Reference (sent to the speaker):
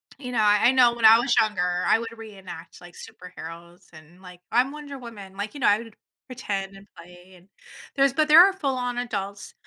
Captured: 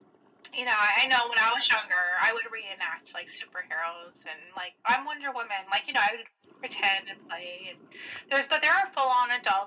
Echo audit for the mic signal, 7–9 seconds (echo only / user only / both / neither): echo only